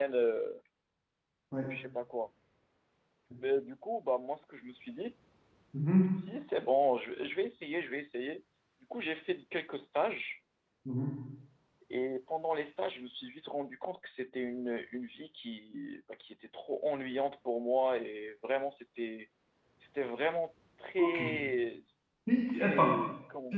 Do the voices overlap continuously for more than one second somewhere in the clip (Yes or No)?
No